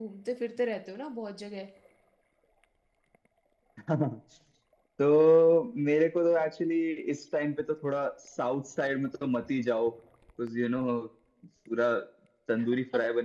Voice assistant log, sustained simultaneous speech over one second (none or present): none